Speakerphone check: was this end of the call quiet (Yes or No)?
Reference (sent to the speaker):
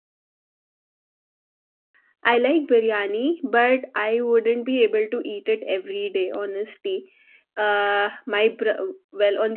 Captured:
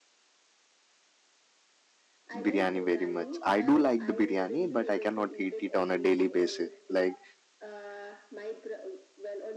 No